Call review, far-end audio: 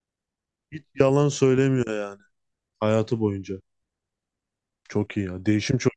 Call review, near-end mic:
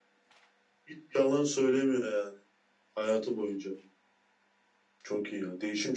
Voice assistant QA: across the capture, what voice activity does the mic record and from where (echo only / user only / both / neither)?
echo only